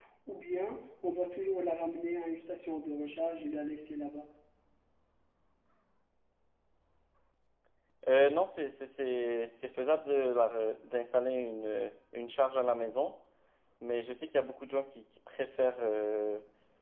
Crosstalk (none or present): none